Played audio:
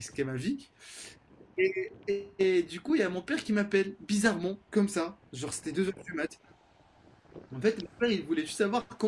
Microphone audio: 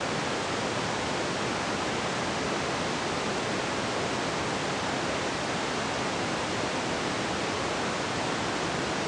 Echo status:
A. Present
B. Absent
B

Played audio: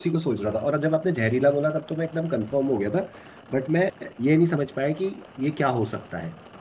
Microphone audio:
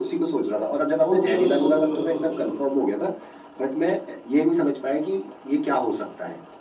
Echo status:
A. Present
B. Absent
A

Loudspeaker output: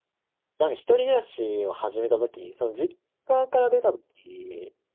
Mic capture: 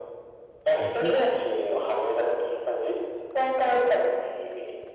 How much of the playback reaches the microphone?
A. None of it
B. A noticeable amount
B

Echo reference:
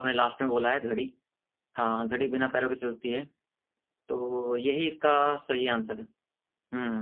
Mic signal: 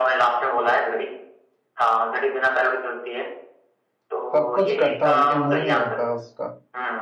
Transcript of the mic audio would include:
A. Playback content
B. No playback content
A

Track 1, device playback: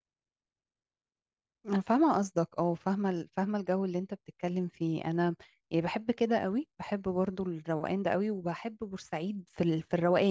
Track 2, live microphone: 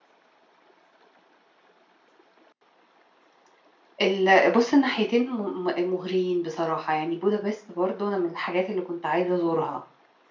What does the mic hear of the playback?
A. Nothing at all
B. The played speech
A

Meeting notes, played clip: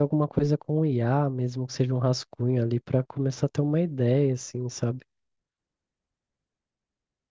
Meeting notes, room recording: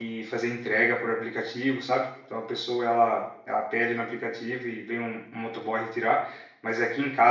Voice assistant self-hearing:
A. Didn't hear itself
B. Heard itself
A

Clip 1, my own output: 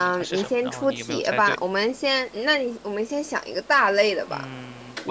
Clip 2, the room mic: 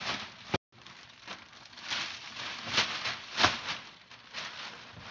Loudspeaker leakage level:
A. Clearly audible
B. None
B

